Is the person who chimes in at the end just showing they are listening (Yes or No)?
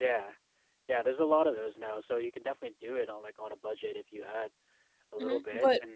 No